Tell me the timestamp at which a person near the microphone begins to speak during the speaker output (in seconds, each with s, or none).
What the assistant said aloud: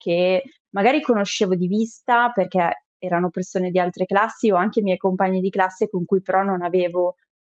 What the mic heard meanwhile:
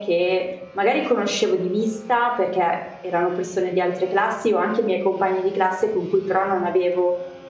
none